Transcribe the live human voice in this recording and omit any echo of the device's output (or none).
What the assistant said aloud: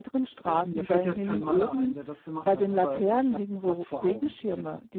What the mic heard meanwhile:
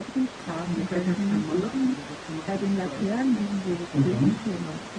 Mhm.